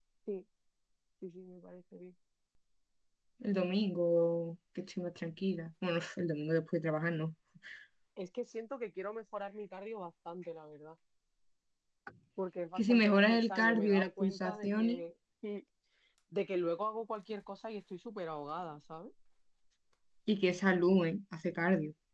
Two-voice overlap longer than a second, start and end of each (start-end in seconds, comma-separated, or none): 12.8-15.0